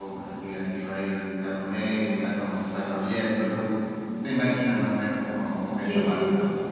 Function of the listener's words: taking over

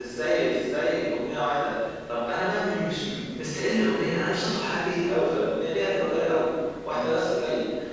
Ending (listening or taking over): listening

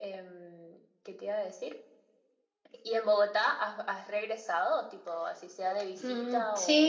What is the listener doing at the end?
taking over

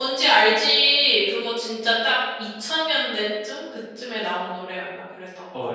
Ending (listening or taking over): taking over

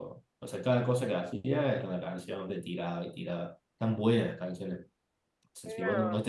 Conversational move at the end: listening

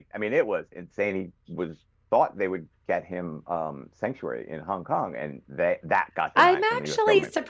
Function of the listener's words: taking over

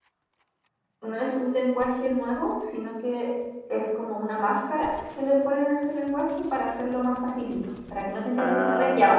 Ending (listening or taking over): taking over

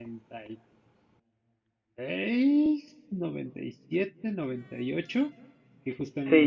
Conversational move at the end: taking over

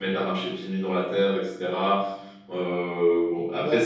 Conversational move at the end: listening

